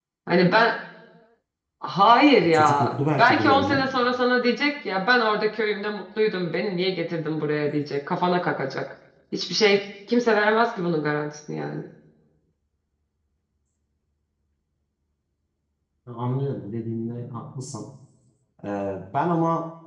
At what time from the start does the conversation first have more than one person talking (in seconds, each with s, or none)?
2.5 s